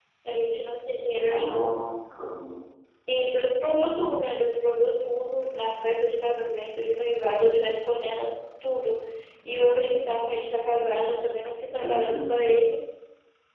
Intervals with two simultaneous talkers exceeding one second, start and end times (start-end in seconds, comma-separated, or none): none